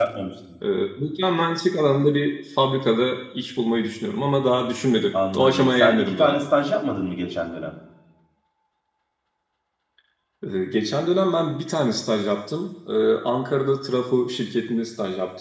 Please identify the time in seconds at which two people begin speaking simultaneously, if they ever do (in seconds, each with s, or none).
5.1 s